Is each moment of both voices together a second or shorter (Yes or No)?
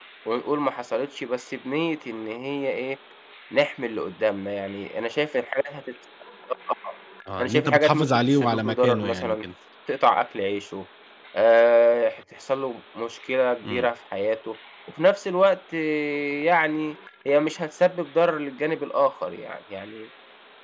No